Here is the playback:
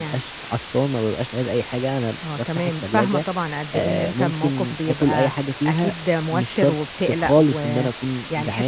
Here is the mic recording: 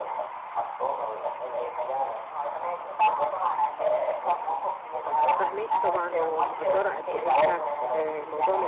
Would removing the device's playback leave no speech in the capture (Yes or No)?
No